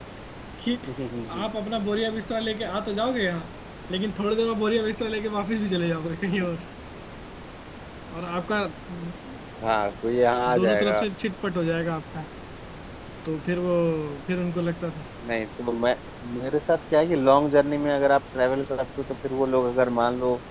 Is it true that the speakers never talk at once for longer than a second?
Yes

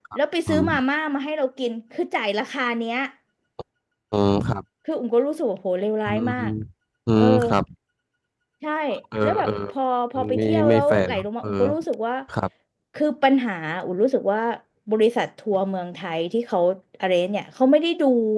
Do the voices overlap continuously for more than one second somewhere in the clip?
Yes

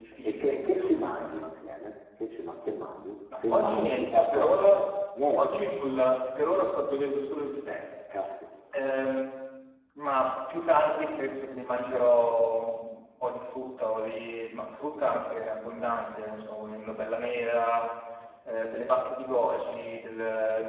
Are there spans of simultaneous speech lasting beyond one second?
Yes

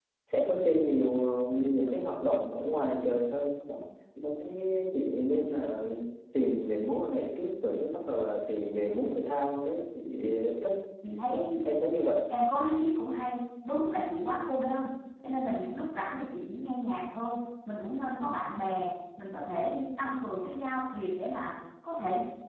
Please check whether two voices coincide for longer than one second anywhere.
No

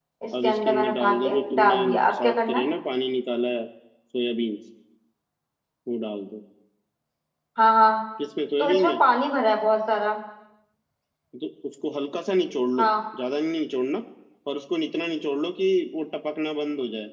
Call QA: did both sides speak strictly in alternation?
No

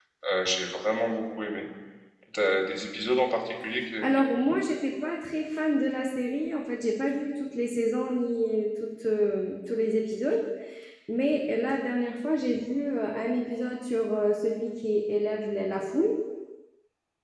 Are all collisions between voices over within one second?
Yes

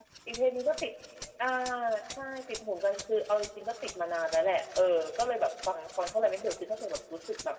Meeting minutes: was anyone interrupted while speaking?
No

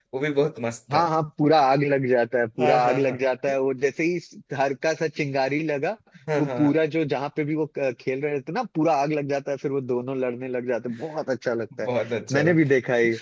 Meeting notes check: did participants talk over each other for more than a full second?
No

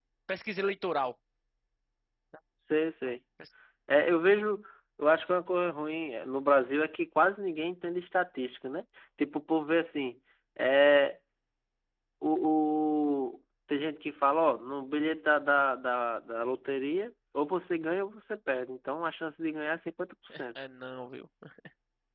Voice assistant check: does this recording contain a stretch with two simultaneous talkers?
No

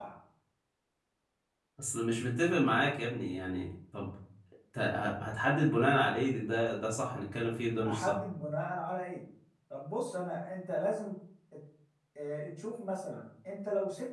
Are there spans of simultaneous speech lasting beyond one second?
No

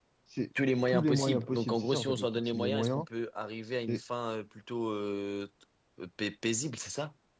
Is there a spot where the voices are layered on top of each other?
Yes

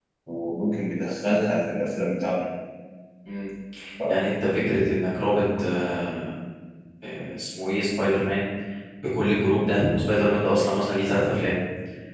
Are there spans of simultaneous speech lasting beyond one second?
No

